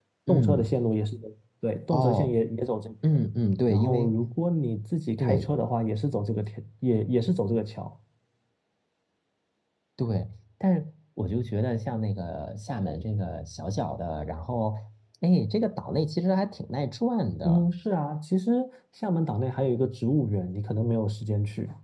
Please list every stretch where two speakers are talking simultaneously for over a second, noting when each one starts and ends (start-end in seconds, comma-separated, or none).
none